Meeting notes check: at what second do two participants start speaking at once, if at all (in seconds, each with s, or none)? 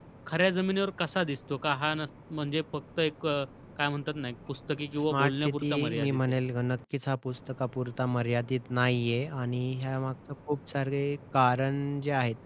4.9 s